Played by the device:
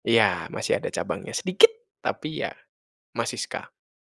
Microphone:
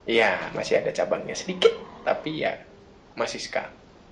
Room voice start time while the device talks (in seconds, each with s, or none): none